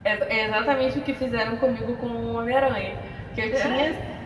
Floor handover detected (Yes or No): No